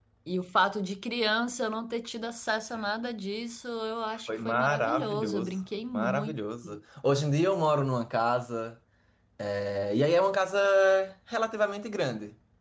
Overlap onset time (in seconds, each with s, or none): 4.3 s